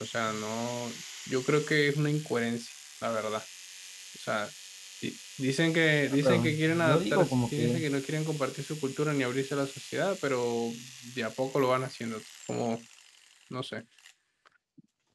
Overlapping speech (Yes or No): Yes